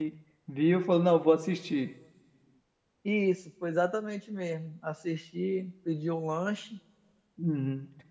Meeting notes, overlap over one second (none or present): none